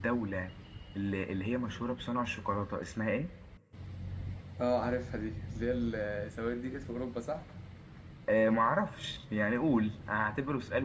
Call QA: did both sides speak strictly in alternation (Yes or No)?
Yes